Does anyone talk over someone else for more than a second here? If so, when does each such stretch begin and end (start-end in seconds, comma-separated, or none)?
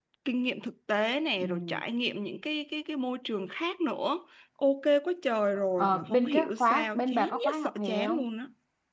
5.8-8.2